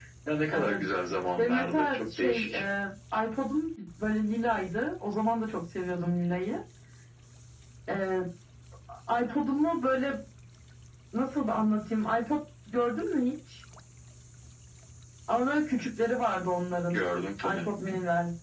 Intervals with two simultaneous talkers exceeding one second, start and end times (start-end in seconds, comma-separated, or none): 1.4-2.6